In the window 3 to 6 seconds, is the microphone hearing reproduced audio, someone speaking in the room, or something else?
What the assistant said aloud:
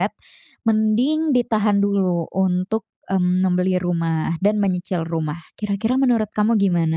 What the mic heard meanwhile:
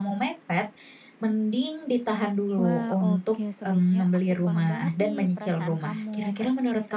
both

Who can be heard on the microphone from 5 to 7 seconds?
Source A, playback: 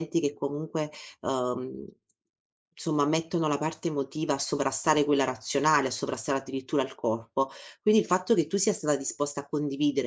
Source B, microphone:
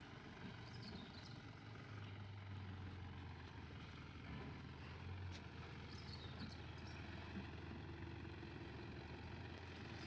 neither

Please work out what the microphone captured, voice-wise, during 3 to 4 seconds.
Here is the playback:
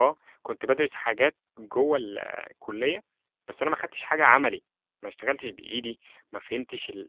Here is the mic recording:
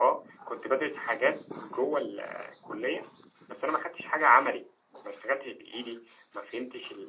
echo only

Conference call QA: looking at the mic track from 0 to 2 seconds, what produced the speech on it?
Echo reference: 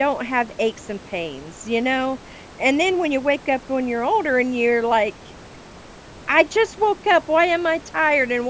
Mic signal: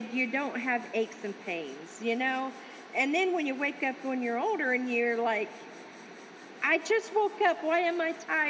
echo only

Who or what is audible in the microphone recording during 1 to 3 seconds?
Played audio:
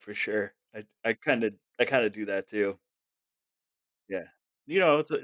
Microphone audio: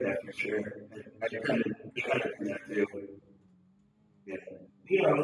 echo only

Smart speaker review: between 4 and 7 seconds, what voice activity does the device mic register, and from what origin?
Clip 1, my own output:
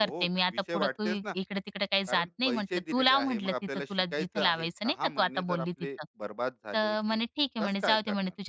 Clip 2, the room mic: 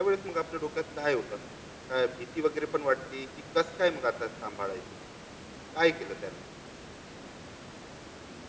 user only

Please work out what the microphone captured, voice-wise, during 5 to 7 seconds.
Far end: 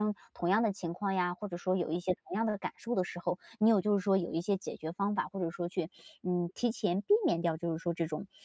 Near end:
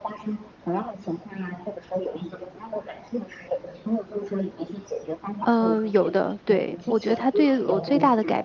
both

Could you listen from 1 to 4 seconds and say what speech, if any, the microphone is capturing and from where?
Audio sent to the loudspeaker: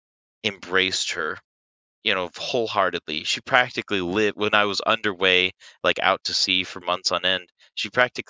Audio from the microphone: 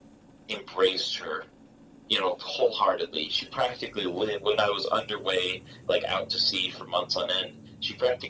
echo only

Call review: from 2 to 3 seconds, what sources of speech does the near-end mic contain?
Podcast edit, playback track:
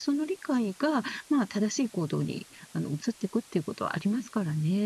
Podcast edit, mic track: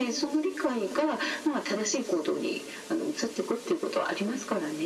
echo only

